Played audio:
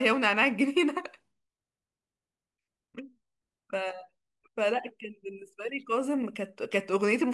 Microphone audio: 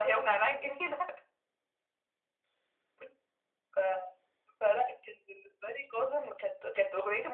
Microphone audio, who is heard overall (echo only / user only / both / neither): echo only